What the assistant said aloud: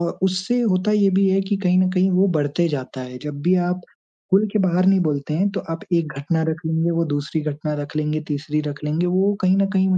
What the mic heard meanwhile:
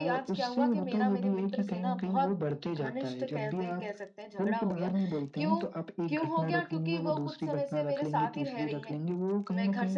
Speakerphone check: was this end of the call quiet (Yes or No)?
No